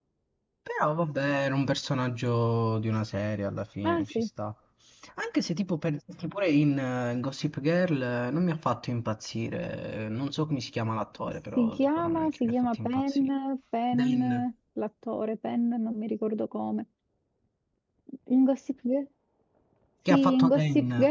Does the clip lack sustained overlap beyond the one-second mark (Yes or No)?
No